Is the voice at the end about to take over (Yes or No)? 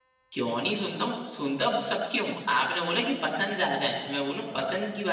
No